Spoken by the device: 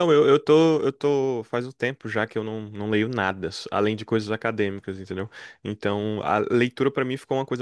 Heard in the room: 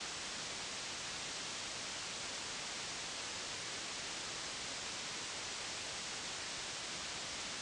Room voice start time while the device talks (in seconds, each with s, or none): none